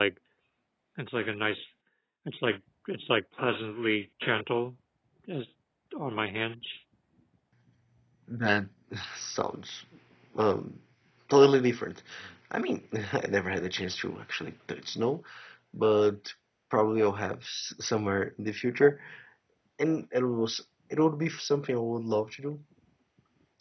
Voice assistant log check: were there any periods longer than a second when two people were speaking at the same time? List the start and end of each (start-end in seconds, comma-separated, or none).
none